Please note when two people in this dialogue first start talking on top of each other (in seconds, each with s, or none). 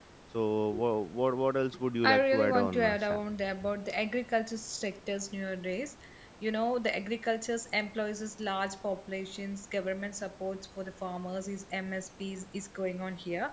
2.0 s